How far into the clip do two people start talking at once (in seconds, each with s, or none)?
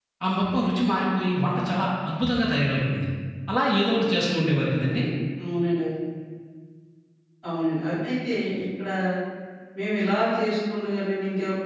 none